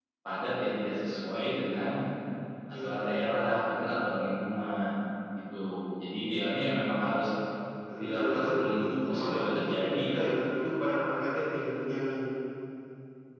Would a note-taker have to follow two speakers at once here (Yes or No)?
Yes